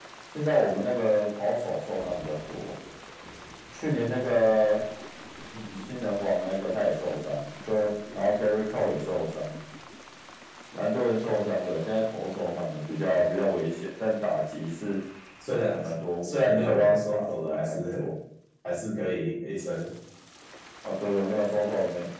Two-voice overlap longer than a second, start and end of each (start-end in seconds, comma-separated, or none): 16.2-18.1